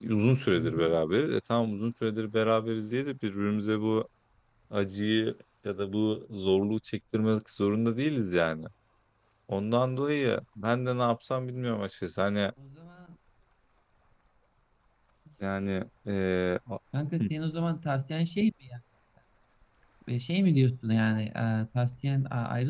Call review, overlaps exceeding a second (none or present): none